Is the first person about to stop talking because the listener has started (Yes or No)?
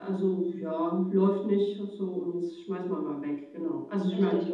Yes